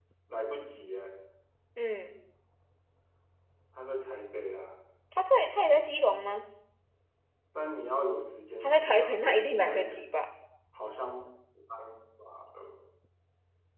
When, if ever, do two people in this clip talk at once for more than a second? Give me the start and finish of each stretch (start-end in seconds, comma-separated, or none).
8.6-10.0